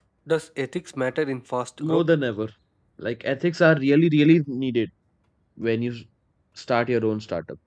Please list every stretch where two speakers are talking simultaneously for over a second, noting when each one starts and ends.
none

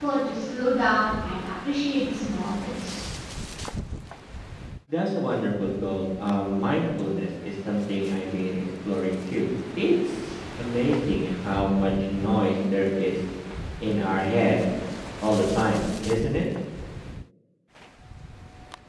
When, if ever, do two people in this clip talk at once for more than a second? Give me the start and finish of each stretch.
none

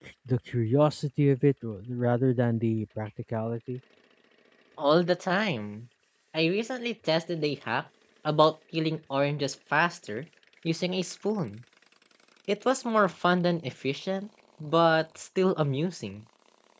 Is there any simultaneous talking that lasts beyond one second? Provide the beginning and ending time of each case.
none

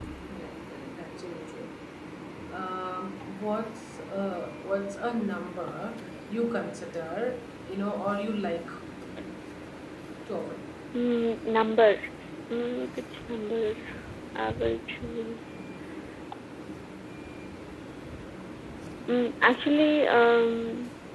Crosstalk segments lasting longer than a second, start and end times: none

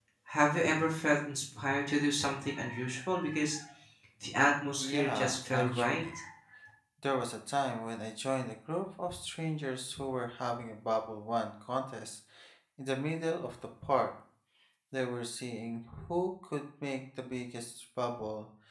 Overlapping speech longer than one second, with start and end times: 4.8-6.0

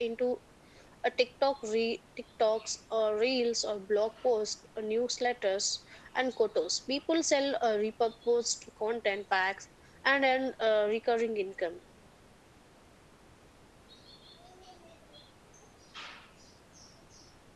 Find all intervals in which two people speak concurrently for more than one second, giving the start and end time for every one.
none

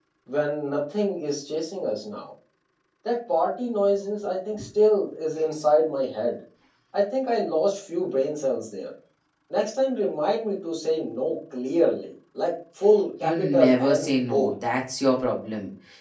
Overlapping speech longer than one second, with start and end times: 13.2-14.5

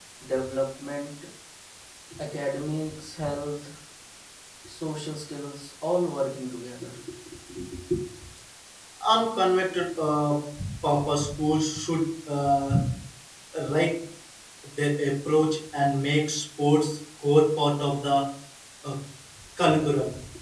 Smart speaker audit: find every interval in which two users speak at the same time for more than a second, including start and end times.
none

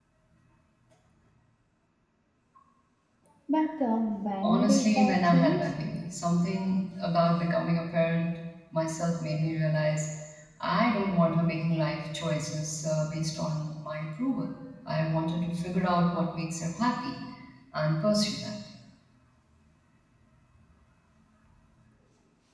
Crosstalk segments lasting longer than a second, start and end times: 4.4-5.7

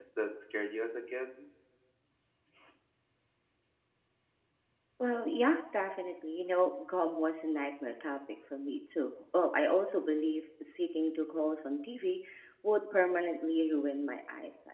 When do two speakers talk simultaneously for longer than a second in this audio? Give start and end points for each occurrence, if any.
none

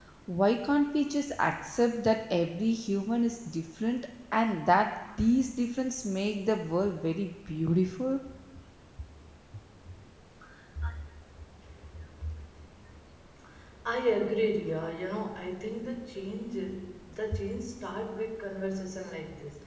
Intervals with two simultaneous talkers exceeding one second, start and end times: none

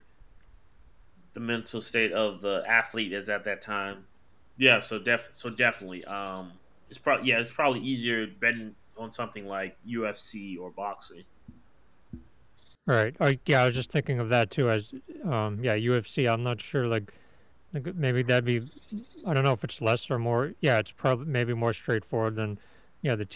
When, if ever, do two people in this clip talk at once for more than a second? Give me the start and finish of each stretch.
none

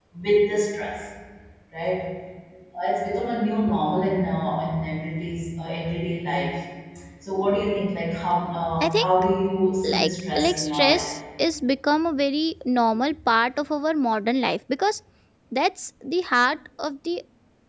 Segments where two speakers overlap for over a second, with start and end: 9.8-11.1

